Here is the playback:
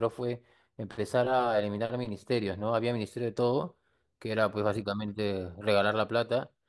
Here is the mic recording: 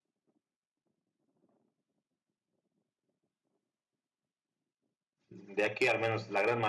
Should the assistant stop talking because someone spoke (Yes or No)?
Yes